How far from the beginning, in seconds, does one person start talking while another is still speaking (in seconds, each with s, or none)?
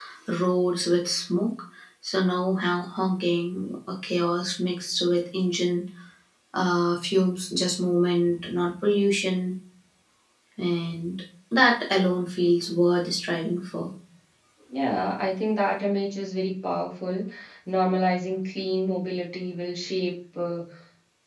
none